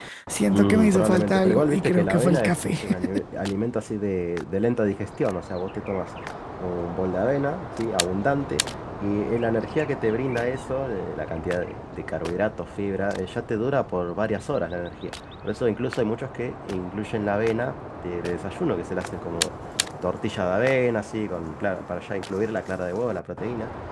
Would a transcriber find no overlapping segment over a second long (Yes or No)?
No